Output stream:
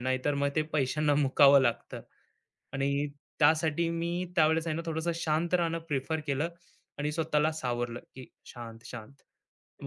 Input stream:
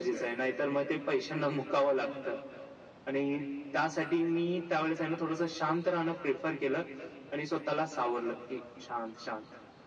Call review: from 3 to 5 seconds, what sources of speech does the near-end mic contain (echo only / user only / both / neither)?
echo only